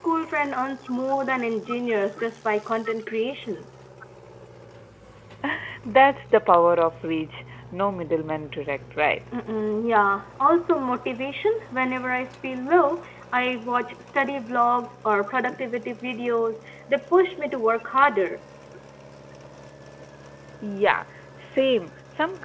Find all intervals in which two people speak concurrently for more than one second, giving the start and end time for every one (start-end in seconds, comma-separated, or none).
none